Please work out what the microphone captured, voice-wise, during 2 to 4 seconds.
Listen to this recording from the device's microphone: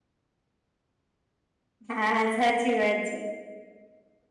user only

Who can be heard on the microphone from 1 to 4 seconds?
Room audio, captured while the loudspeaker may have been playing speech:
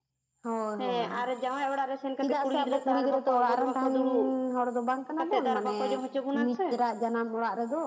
both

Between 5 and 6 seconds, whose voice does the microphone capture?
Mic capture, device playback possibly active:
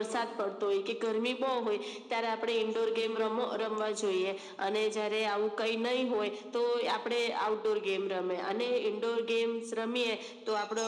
echo only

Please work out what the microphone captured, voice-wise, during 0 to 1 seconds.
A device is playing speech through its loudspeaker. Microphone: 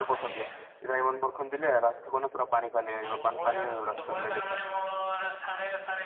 both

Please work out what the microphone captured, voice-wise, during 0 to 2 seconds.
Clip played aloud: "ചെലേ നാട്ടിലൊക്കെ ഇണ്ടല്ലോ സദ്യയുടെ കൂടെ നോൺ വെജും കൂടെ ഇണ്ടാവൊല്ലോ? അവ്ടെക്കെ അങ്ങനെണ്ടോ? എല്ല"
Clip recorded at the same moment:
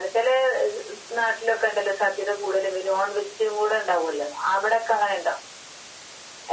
echo only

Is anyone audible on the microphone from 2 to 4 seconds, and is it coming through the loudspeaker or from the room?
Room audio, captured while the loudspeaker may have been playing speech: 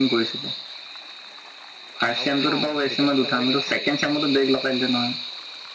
both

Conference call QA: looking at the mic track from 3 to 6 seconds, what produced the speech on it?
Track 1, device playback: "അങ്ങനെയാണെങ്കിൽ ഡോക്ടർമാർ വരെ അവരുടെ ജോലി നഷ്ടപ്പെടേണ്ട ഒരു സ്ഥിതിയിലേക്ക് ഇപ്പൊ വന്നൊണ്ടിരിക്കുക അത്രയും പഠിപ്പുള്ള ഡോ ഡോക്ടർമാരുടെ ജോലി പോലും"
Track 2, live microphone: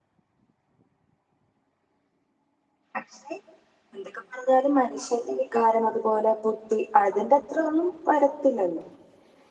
user only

